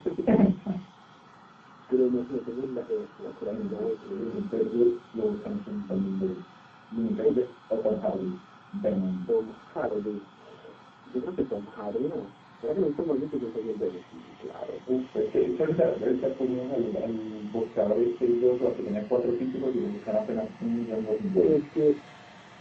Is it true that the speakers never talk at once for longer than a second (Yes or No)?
No